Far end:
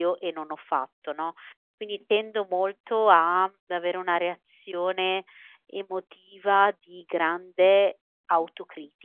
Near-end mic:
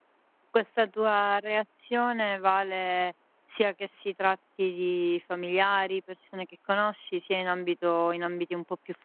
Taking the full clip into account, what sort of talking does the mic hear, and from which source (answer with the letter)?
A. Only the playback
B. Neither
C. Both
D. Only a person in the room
D